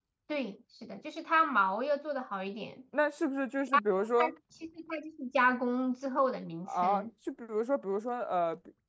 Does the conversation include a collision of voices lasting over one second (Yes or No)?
No